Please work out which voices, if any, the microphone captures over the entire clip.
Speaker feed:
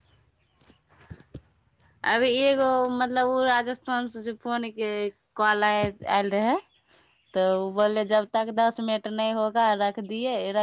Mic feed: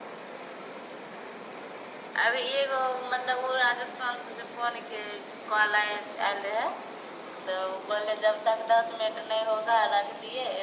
echo only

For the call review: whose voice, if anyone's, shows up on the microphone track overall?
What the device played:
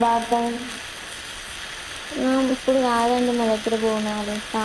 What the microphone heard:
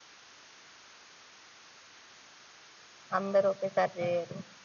user only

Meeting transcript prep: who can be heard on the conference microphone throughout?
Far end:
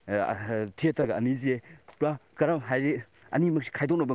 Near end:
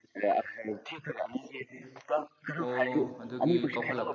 both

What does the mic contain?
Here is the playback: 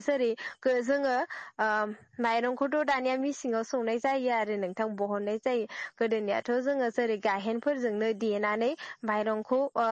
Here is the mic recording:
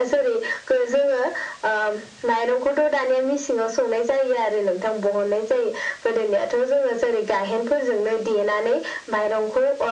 echo only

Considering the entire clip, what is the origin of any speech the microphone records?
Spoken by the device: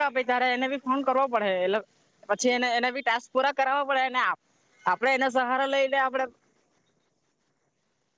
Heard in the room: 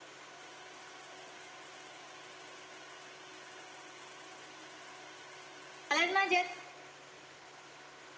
user only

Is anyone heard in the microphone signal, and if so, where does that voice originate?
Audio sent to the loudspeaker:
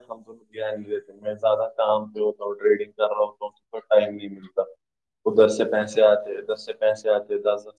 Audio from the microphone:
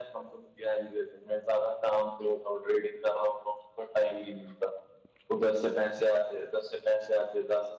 echo only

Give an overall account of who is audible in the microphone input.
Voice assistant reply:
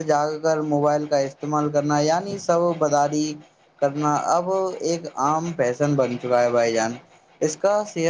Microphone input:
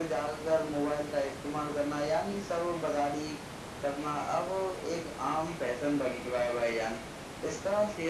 echo only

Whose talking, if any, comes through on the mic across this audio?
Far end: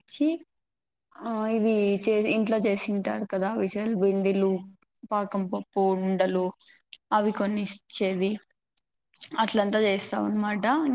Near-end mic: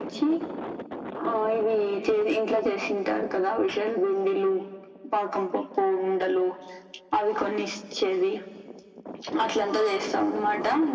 echo only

